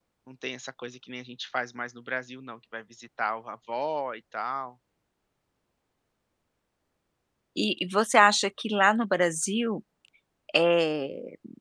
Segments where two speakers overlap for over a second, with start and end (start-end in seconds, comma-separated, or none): none